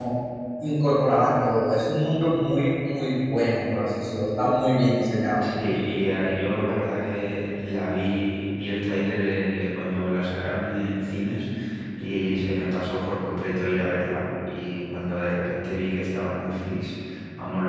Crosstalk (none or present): none